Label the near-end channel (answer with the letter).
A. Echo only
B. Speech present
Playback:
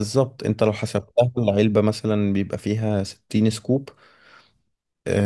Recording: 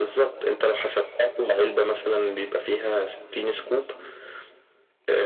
A